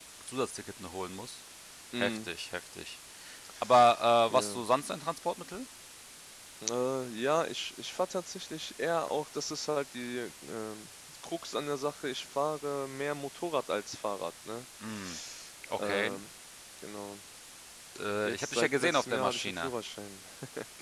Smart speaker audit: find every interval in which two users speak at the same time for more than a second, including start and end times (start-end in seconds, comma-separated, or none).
18.2-19.7